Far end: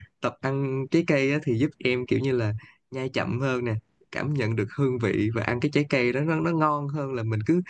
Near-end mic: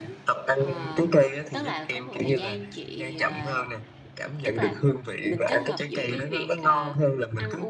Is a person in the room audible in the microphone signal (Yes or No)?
Yes